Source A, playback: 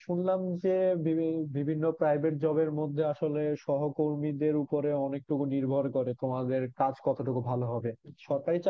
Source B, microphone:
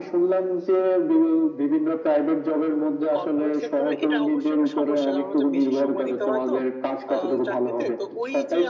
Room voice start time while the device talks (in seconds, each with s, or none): 3.1 s